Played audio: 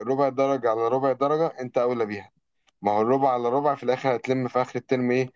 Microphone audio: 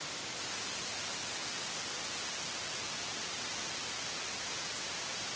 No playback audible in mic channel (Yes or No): Yes